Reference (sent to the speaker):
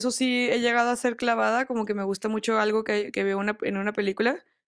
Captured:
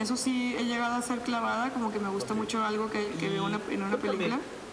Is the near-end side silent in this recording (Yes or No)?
No